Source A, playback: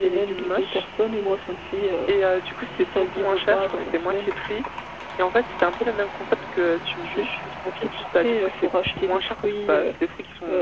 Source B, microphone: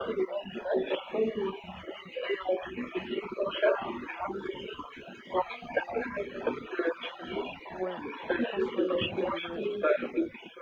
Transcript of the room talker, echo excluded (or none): Ouais, en France, ouais, il y a des frais de livraison.